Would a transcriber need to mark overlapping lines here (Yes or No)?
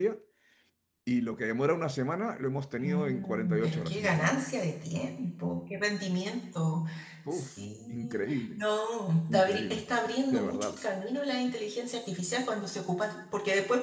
Yes